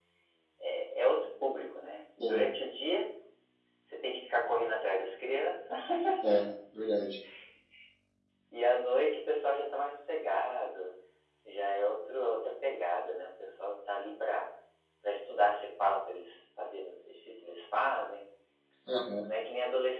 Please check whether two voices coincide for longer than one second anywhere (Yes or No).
No